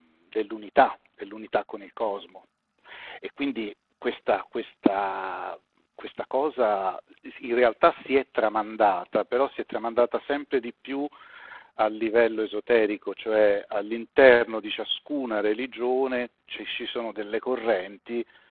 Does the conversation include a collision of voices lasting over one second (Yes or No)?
No